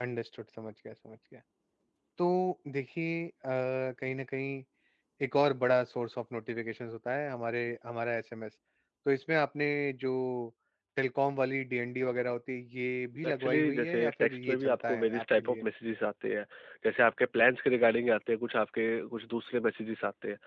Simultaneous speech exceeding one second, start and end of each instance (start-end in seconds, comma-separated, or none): 13.3-15.6